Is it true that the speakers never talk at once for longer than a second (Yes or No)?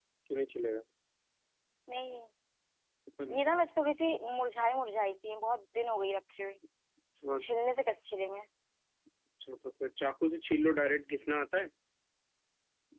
Yes